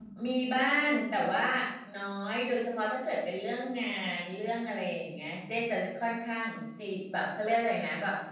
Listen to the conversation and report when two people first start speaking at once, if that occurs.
none

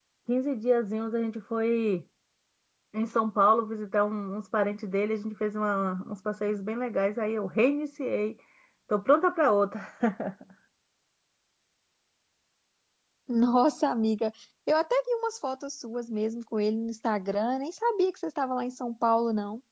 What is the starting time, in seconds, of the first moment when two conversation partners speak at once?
none

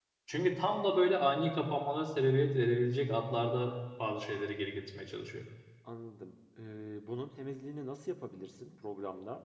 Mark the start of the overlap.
none

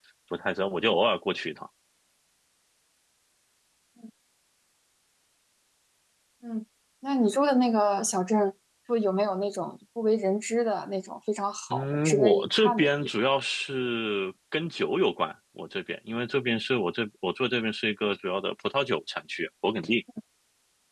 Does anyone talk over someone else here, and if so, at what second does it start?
11.7 s

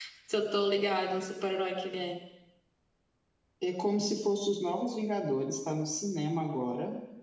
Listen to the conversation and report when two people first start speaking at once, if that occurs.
none

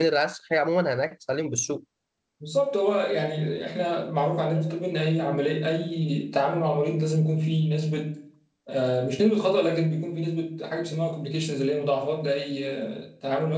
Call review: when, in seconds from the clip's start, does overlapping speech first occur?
none

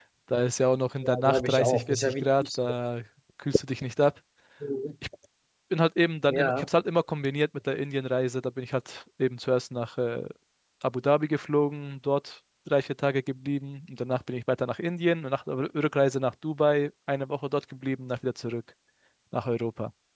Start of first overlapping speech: 1.2 s

